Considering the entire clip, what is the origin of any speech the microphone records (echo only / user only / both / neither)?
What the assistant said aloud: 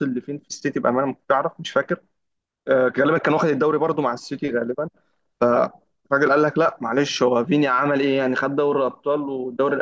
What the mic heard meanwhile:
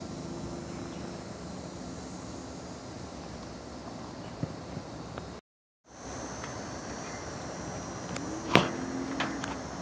neither